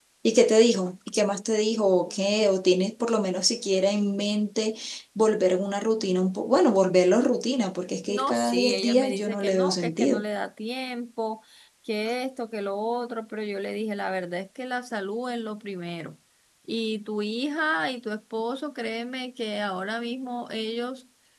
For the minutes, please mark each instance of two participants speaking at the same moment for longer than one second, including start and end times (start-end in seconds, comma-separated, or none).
8.1-10.2